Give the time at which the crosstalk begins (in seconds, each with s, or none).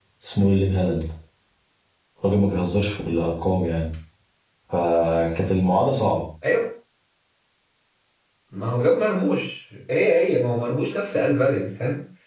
none